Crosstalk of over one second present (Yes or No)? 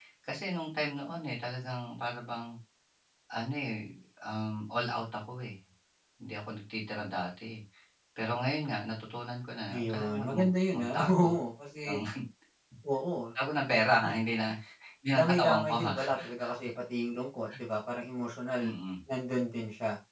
Yes